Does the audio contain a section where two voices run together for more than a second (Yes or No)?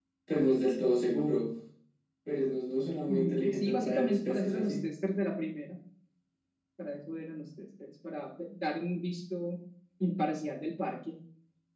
Yes